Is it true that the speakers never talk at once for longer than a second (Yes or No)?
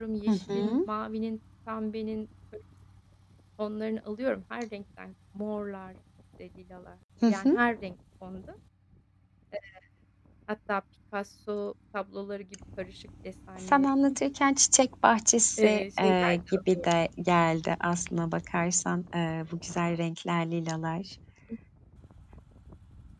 No